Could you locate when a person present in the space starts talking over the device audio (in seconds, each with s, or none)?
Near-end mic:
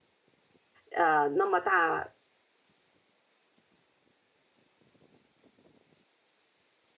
0.9 s